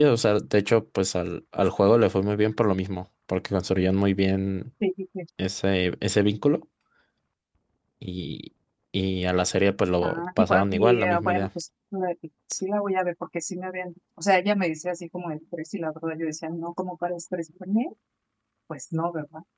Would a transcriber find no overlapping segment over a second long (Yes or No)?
No